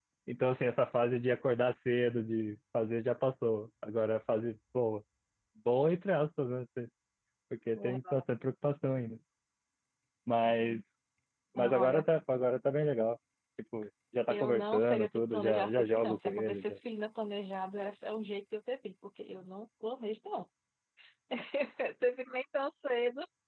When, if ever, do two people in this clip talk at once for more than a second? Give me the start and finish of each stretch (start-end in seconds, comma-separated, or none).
14.3-16.8